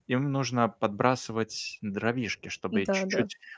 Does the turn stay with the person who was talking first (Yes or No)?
Yes